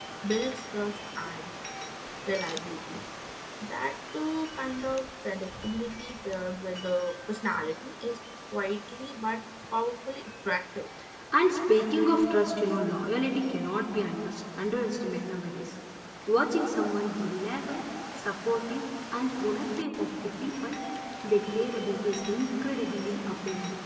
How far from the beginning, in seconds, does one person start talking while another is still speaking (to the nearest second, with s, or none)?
none